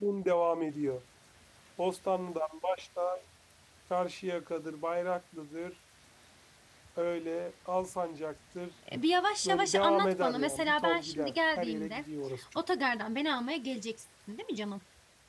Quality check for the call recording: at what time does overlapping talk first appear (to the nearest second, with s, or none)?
9 s